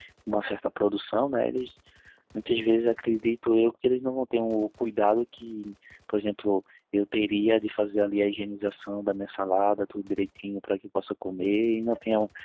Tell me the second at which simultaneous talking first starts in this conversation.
none

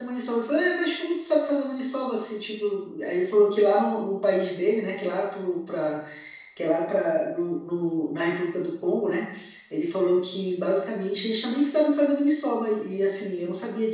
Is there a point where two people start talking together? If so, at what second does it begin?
none

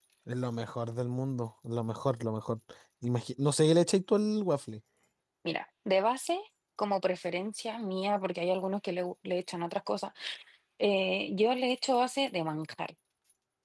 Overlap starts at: none

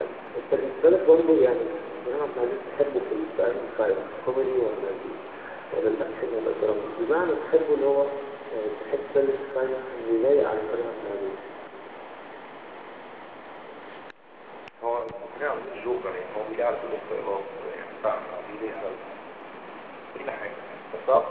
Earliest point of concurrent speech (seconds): none

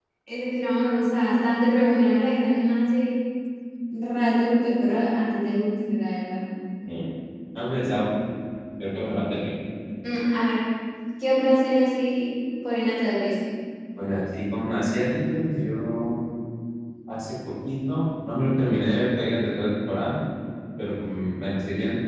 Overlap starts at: none

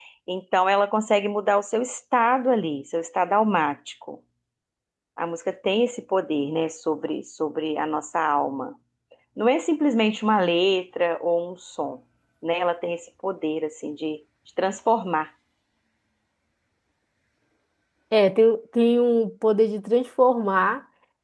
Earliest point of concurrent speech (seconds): none

